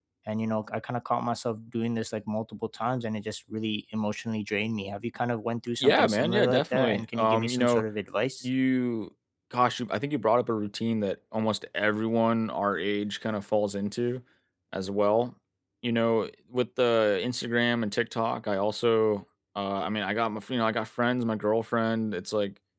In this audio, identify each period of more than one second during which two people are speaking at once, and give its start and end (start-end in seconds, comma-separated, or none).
5.8-7.8